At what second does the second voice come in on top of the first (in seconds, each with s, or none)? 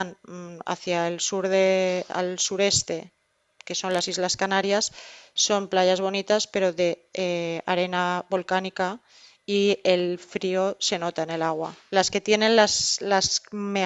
none